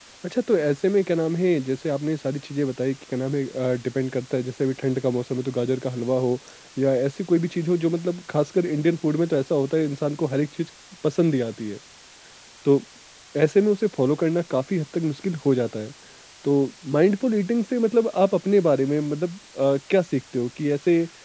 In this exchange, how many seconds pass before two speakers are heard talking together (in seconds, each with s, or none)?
none